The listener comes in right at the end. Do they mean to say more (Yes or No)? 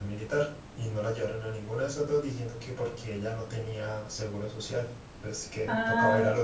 Yes